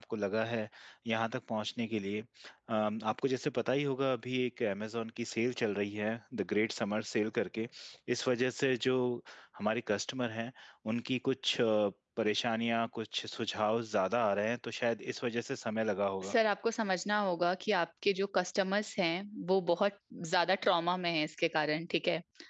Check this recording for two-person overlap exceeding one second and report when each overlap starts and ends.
none

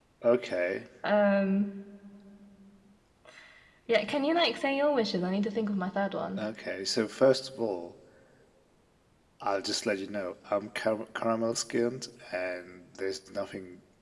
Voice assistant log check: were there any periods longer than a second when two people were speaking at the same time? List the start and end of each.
none

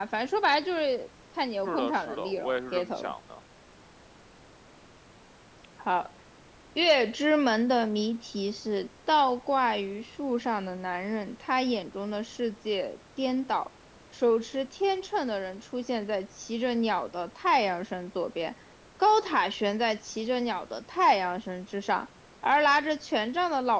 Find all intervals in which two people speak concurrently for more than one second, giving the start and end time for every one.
1.6-3.1

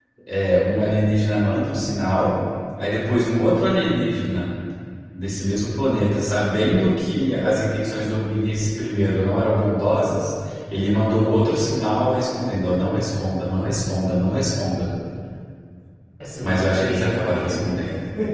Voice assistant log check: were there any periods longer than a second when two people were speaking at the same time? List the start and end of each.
16.4-17.7

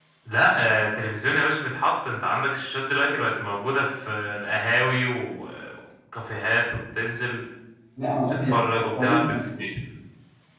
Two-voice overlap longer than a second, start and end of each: 8.3-9.6

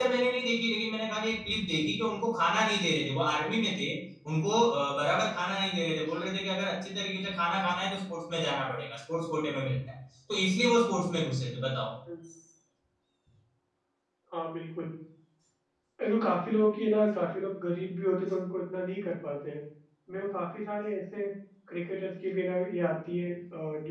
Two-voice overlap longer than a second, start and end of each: none

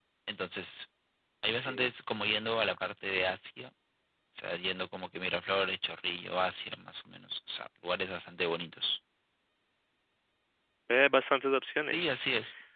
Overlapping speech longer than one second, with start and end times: none

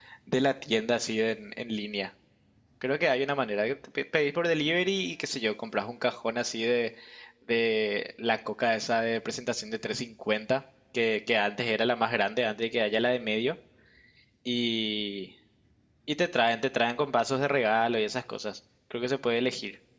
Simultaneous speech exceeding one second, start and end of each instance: none

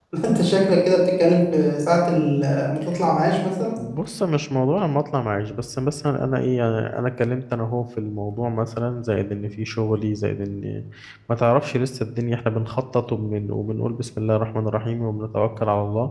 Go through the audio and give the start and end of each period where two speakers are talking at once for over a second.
none

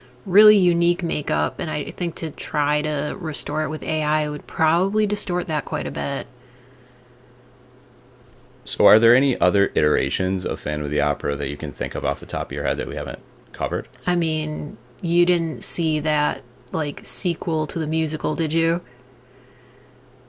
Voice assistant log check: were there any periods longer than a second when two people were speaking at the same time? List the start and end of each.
none

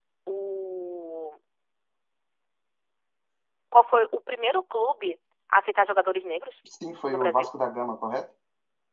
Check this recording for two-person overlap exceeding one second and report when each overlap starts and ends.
none

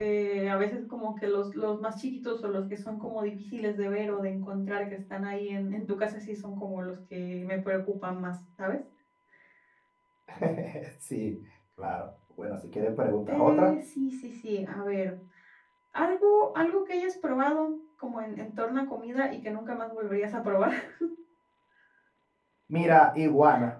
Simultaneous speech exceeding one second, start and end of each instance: none

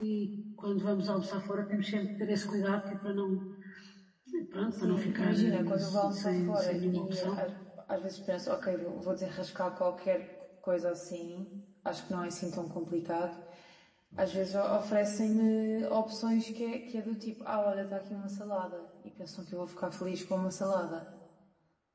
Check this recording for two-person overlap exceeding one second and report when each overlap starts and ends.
4.7-7.4

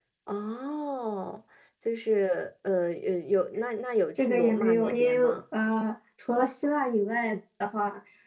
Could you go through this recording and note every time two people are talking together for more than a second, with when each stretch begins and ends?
4.2-5.4

